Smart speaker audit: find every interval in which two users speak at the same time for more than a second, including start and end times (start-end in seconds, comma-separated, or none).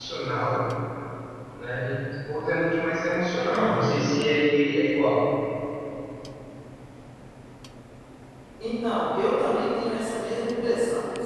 none